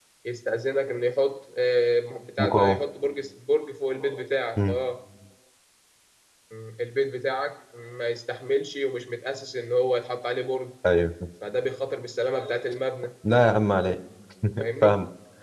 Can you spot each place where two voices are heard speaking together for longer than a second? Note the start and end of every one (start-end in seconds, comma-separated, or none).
none